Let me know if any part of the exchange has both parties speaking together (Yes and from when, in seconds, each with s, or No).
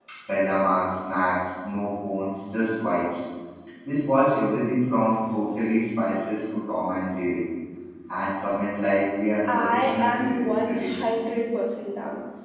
Yes, from 9.4 s